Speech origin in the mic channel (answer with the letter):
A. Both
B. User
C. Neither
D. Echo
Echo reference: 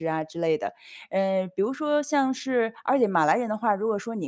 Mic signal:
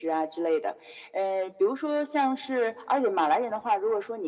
D